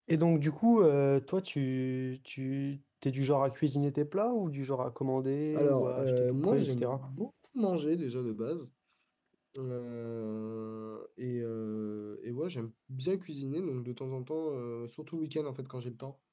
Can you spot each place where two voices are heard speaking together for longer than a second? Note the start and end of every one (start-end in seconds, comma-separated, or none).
5.5-7.0